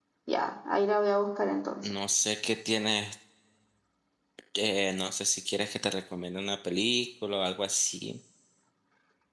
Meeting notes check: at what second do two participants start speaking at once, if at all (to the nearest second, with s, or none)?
none